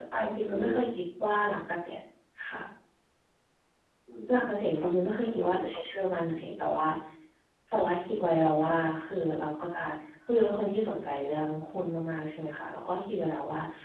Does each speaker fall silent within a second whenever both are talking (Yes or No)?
No